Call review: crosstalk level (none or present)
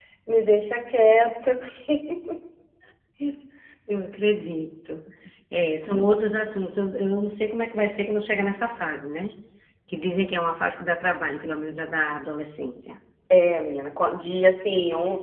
none